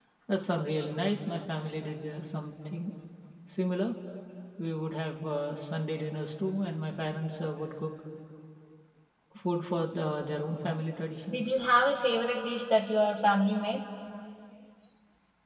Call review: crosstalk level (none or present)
none